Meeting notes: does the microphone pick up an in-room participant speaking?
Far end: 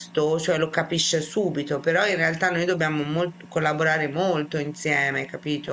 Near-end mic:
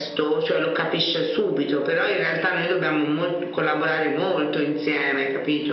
No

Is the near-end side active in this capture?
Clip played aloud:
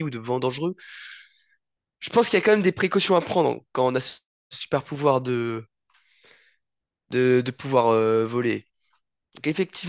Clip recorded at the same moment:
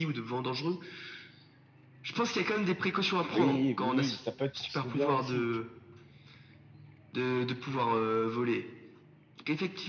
Yes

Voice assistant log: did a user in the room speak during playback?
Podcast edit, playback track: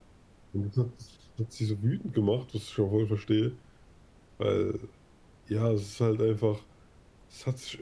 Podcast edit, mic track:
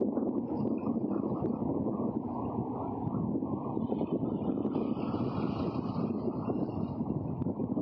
No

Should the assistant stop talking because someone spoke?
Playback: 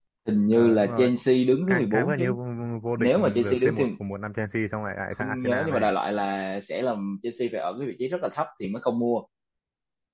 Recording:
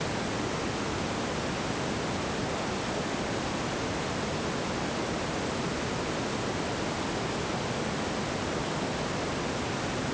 No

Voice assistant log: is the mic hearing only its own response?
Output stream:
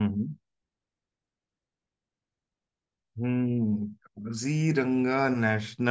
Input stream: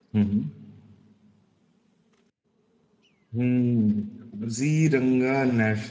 Yes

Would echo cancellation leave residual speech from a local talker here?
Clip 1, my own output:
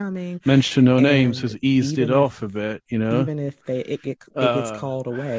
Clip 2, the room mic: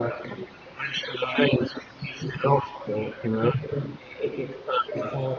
No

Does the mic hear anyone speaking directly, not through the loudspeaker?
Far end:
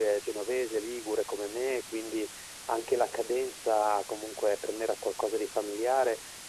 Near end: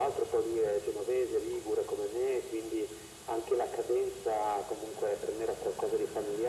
No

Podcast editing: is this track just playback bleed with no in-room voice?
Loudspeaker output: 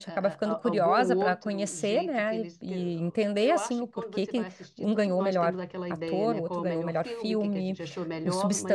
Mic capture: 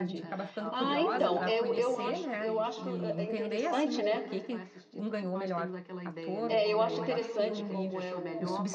No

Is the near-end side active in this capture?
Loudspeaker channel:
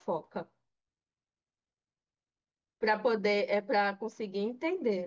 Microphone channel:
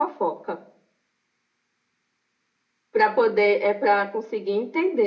No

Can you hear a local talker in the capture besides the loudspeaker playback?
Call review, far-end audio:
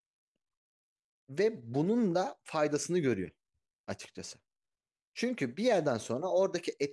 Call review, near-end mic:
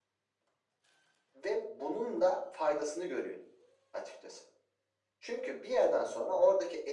No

